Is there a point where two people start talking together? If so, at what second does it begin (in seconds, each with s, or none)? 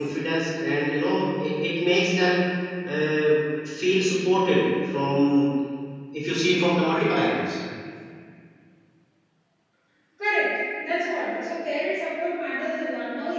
none